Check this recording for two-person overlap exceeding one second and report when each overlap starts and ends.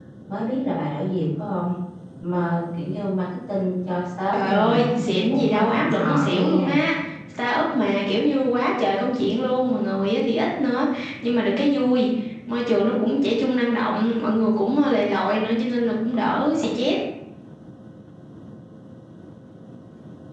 4.3-6.7

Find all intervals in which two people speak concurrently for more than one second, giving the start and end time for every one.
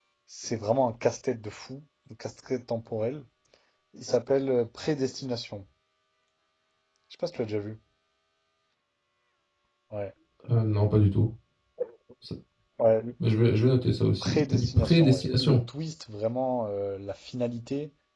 14.2-15.6

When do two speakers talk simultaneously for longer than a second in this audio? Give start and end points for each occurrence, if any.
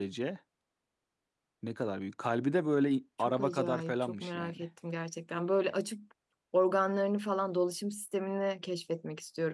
3.2-4.6

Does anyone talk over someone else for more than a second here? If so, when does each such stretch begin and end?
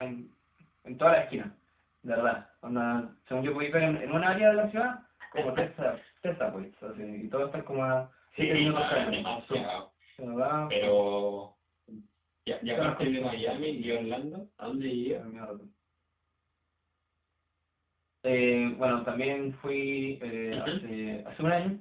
8.4-9.7, 12.7-13.9

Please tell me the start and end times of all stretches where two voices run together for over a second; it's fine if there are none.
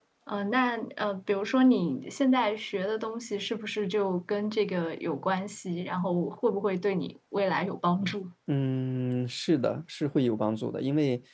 none

